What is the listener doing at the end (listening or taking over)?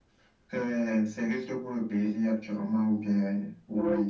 taking over